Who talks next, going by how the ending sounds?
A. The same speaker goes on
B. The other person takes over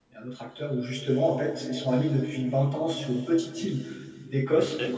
A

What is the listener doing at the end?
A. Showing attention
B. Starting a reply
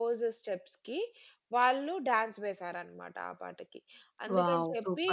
B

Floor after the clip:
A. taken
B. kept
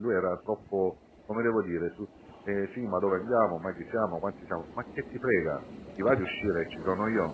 B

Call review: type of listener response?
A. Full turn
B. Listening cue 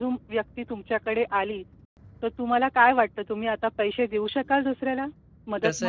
A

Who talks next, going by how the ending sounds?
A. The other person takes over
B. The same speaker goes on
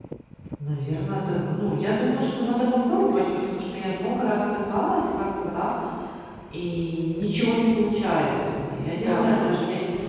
B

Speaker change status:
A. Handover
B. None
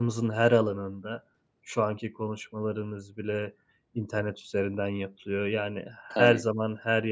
B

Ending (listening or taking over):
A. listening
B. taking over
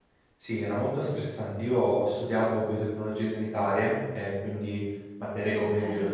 A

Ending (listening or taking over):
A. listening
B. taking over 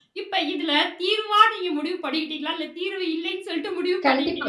B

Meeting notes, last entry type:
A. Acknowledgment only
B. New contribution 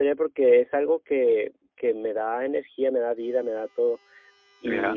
A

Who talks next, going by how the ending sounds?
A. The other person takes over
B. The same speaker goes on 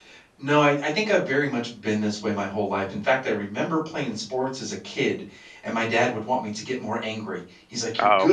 B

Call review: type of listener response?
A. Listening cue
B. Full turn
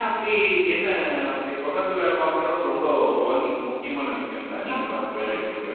B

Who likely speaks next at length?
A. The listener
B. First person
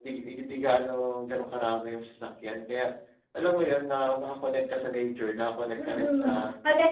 A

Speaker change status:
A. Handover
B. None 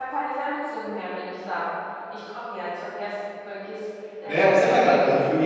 A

